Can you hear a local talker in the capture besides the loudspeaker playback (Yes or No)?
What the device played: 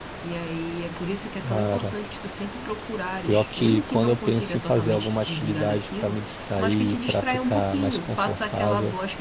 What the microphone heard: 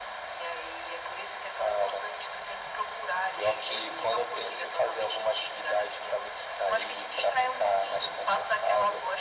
No